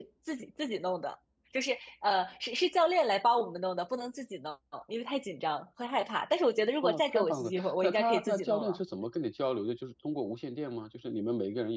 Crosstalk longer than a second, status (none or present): present